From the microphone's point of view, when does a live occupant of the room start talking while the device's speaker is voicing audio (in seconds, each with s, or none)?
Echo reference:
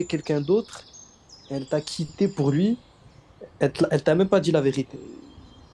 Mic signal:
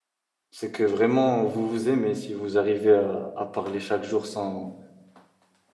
0.5 s